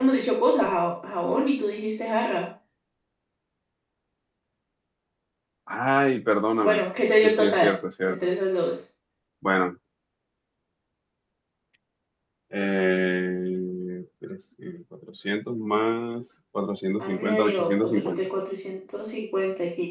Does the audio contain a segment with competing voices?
Yes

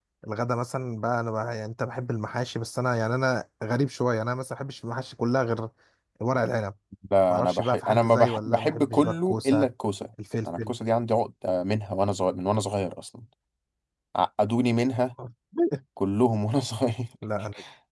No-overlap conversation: No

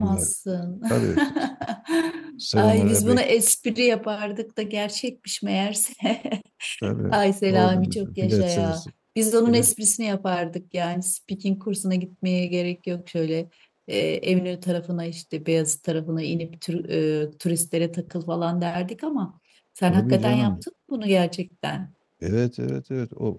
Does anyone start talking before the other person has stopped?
Yes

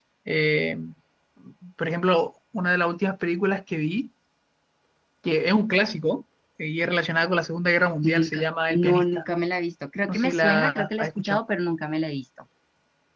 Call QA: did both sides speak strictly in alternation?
No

